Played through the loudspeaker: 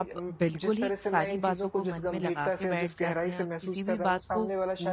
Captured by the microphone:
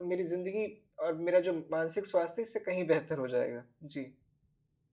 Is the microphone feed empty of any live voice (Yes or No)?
No